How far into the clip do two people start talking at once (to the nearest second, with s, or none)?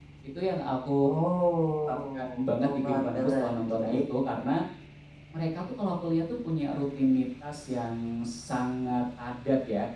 2 s